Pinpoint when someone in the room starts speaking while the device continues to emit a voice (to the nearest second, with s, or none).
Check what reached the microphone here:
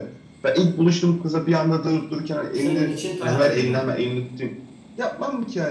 3 s